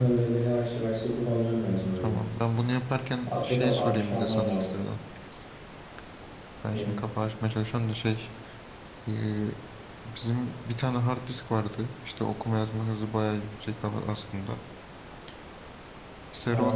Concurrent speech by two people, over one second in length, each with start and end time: 3.3-4.7

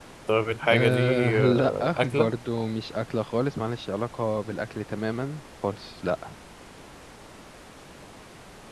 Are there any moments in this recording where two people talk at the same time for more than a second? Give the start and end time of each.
0.6-2.3

